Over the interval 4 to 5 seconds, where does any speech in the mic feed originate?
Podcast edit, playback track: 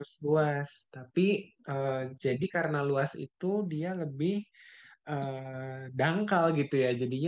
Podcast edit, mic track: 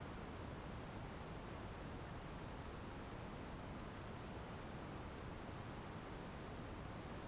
neither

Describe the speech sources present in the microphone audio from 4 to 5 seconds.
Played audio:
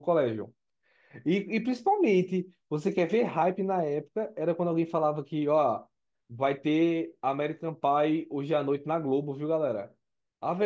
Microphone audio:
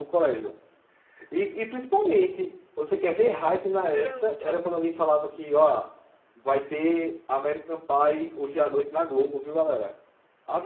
both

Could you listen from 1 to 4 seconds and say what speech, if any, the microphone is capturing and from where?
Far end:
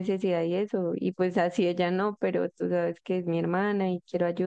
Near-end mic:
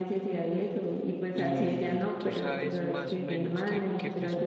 both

